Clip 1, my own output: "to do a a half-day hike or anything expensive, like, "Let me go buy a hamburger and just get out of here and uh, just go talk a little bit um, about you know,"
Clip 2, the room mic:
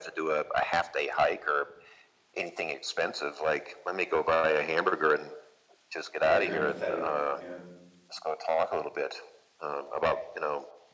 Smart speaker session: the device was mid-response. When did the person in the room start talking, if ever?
6.2 s

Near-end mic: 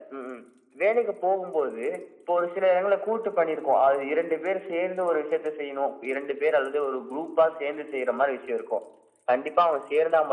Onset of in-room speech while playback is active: none

